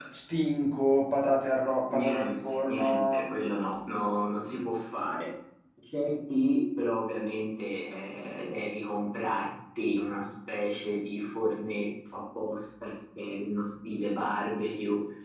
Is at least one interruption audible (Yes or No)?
Yes